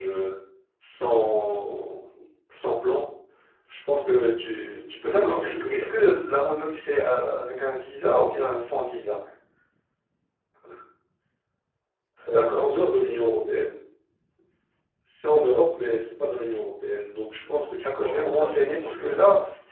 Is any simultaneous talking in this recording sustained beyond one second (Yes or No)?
Yes